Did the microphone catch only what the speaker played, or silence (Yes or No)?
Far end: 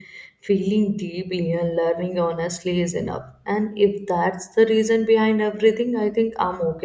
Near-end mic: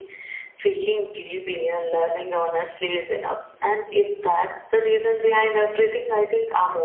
Yes